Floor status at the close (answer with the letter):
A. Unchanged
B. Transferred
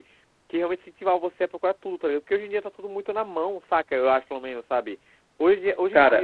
A